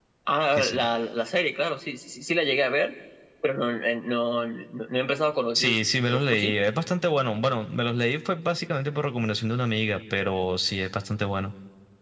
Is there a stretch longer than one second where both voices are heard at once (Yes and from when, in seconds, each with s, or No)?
No